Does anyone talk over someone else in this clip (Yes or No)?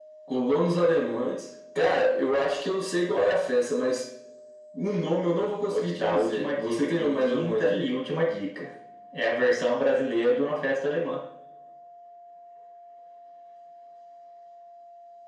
Yes